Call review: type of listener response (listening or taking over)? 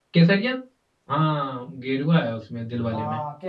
taking over